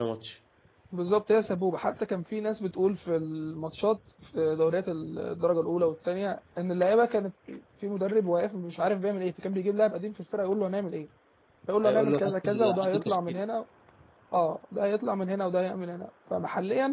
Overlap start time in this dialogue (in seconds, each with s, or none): 11.8 s